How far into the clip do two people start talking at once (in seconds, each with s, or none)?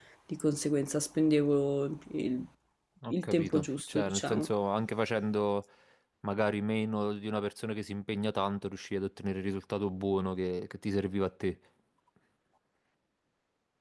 3.1 s